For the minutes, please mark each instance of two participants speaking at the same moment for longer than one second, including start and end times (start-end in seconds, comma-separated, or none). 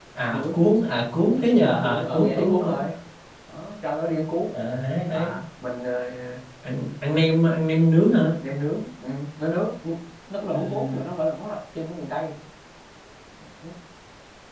1.2-2.8